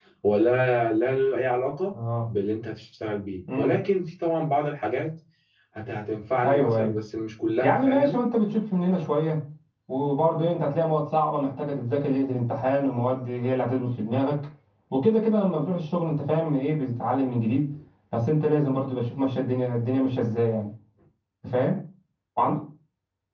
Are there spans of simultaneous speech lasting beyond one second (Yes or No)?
No